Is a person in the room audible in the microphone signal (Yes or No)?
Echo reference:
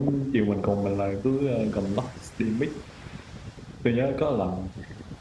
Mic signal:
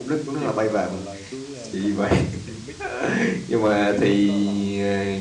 Yes